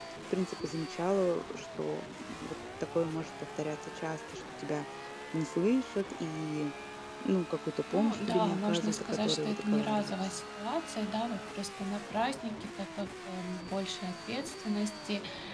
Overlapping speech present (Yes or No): Yes